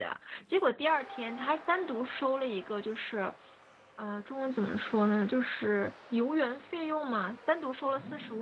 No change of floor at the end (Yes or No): Yes